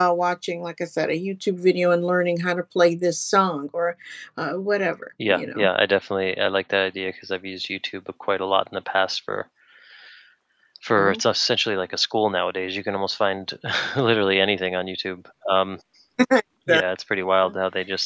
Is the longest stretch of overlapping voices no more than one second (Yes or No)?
Yes